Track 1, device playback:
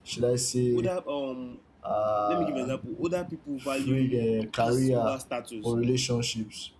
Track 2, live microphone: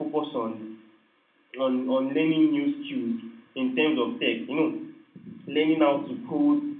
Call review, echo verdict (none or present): none